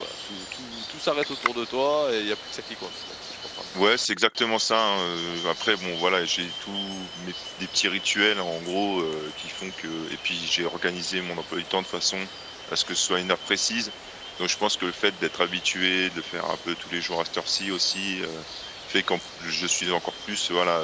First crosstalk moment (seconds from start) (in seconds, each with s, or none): none